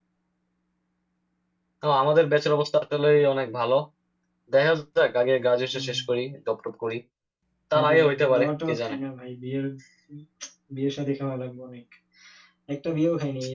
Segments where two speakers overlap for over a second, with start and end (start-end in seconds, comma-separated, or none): 7.7-8.9